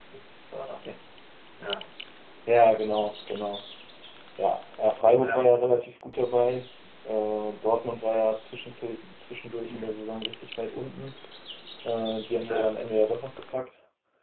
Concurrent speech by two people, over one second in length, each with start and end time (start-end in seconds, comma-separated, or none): none